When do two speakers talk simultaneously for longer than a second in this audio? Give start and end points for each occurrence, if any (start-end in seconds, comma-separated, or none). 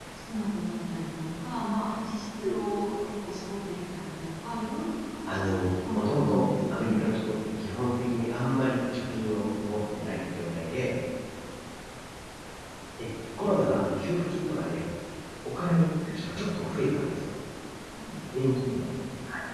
5.3-7.1